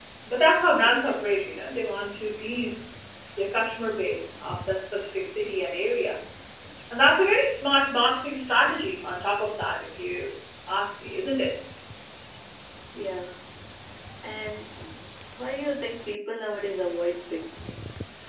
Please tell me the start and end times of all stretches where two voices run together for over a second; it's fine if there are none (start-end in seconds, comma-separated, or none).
none